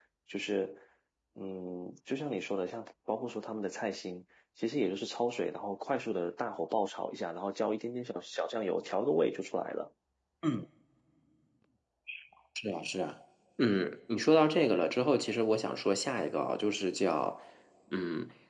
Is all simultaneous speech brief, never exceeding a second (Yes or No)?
Yes